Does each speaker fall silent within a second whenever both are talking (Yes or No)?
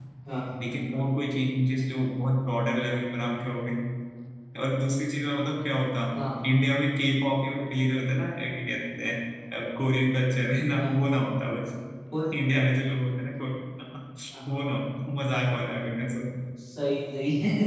Yes